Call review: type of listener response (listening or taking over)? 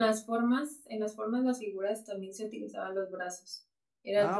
taking over